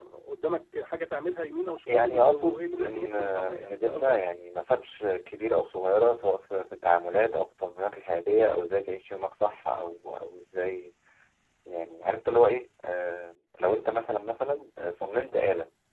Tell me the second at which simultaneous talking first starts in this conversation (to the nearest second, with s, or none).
2 s